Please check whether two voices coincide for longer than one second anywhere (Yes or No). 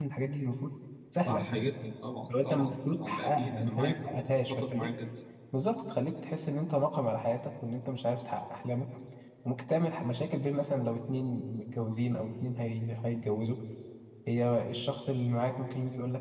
Yes